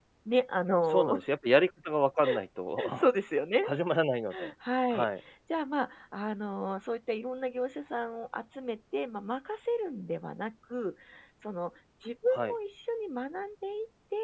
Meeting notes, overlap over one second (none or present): none